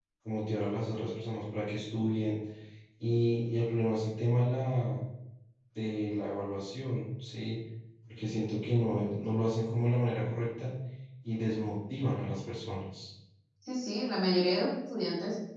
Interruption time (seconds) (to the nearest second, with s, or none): none